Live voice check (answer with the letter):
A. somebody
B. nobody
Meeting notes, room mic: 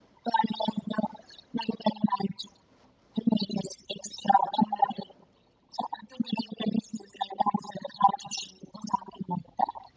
B